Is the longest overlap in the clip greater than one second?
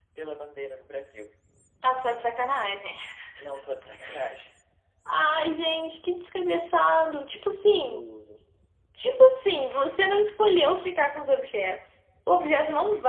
No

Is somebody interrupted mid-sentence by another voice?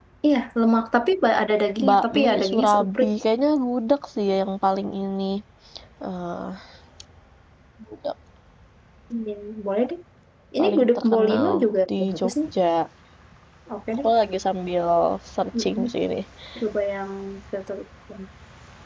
Yes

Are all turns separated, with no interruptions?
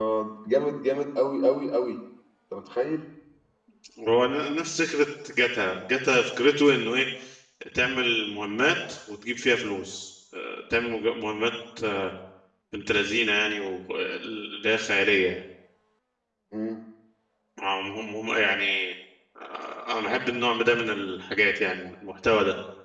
Yes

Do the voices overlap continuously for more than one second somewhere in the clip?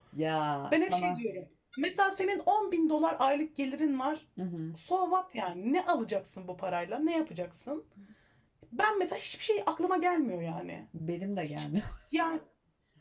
No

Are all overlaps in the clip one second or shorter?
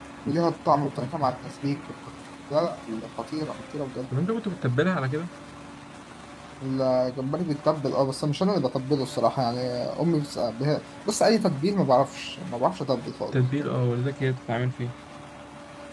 Yes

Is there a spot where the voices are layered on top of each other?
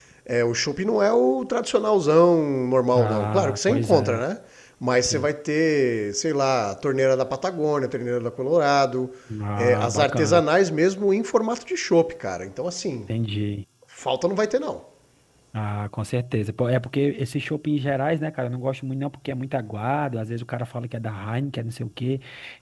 Yes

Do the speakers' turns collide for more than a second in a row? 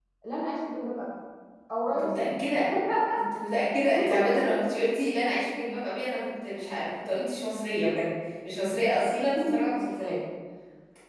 No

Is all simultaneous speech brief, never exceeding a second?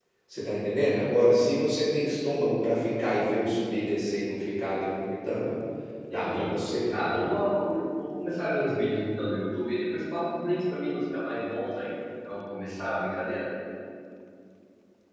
Yes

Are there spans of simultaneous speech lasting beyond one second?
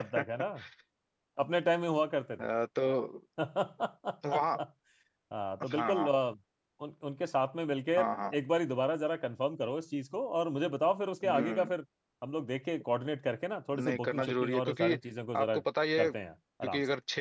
Yes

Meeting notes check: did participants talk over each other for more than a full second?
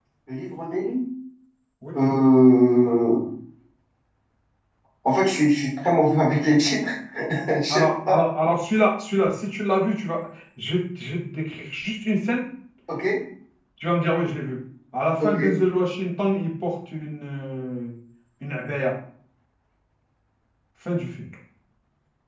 No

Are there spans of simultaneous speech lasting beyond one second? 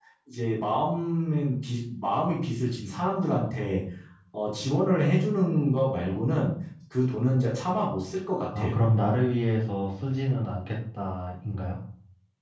No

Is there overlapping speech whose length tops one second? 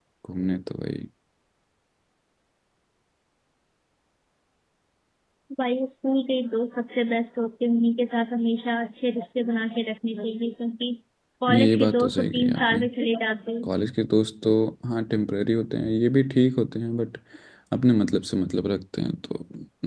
Yes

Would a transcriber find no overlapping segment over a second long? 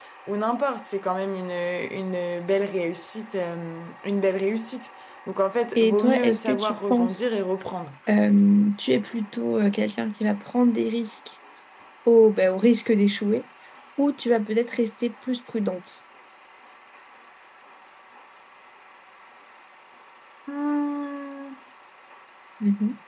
No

